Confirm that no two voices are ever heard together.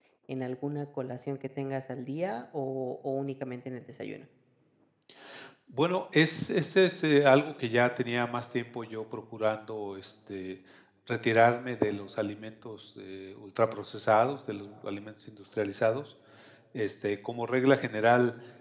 Yes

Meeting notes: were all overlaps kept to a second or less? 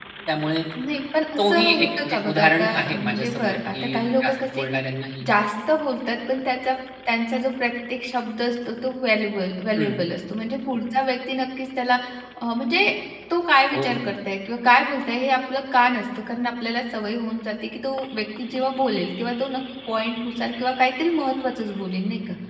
No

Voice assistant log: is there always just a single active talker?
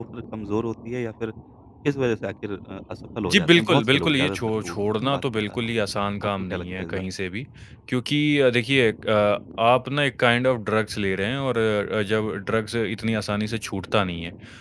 No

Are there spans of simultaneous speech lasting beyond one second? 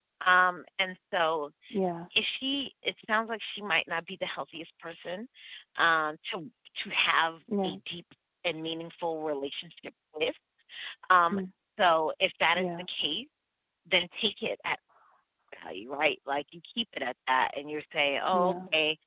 No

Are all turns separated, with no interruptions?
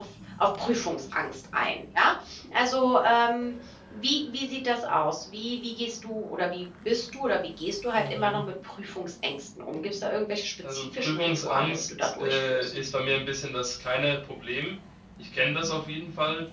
No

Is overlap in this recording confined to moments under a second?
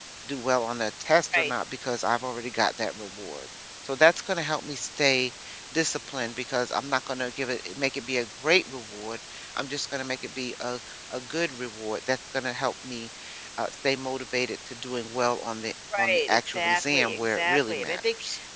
No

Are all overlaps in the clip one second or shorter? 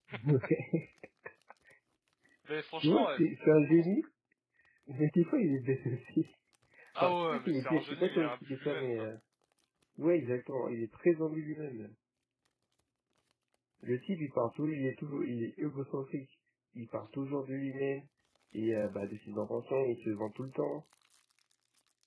No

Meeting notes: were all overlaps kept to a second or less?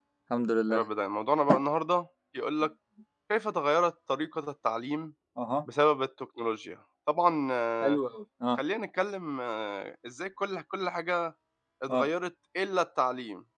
Yes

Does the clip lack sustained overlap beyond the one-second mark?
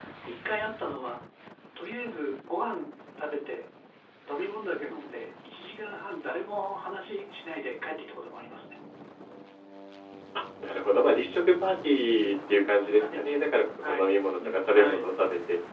Yes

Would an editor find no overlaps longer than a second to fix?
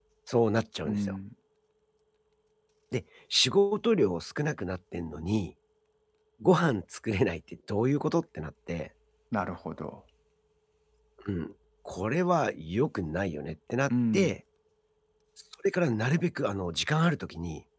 Yes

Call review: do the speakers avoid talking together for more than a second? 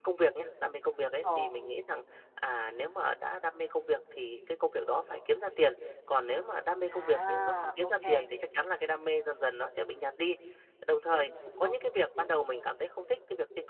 No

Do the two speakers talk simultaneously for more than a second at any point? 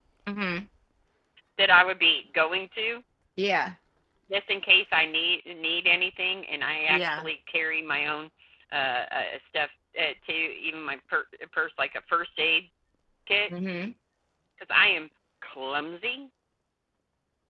No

